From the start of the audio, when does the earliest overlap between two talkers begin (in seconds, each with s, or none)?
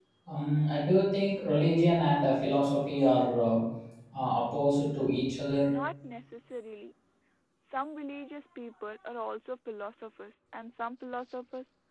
none